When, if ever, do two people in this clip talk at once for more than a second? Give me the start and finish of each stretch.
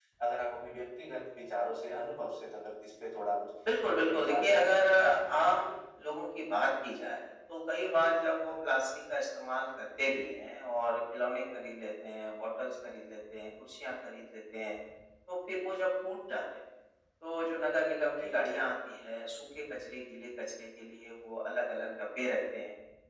3.9-5.3

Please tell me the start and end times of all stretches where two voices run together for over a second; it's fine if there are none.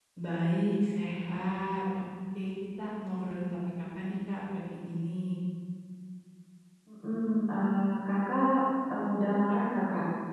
none

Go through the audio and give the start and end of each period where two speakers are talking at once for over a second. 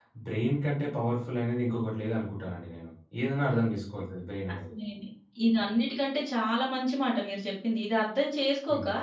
none

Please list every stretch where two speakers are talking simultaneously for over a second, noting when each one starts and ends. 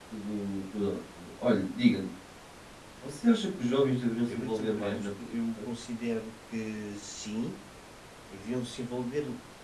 4.0-5.7

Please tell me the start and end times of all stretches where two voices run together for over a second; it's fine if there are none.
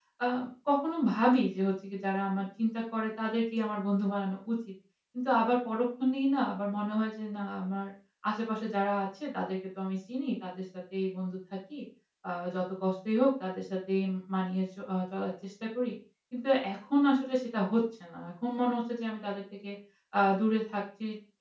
none

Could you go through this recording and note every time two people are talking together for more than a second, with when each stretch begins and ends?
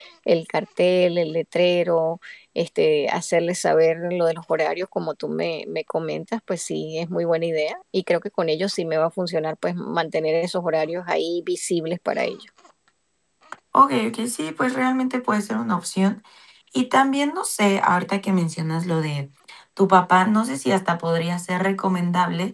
none

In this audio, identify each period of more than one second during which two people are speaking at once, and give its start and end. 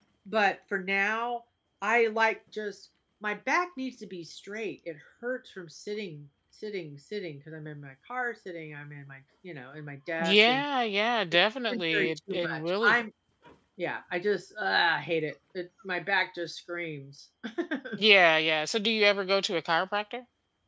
11.7-12.9

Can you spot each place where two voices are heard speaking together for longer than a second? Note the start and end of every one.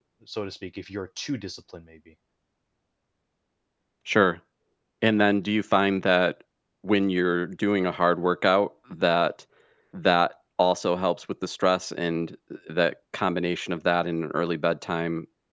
none

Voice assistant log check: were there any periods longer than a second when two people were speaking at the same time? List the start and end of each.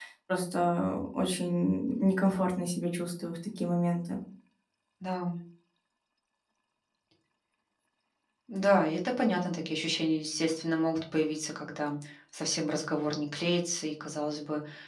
none

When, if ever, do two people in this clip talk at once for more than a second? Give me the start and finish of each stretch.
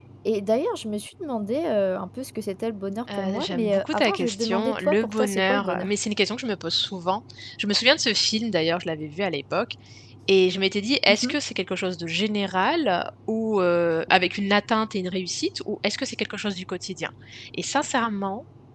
3.1-5.9

